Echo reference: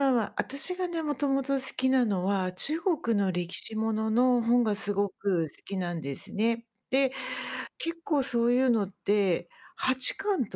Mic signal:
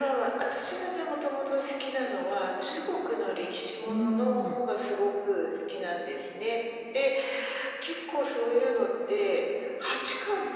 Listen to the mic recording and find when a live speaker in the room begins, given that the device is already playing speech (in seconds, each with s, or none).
3.9 s